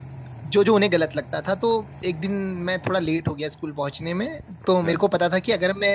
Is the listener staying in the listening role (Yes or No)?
Yes